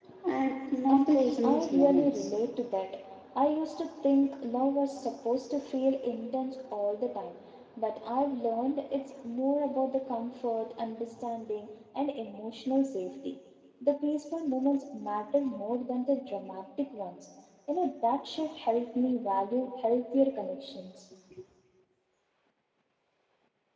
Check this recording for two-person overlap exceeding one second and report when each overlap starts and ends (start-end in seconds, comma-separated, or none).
0.9-2.3